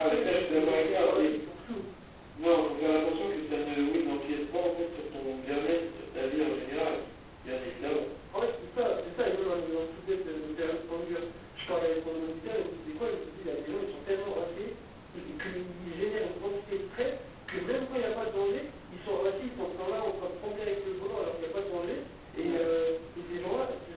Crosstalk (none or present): present